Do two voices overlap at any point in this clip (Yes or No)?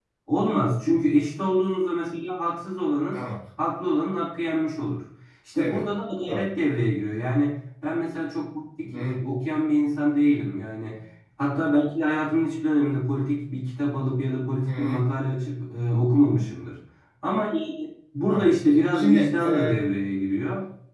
Yes